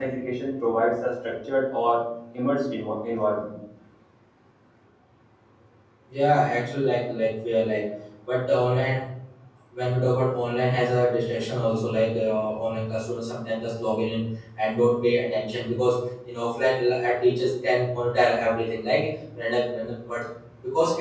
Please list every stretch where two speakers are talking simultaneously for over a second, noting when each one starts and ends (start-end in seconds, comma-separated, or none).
none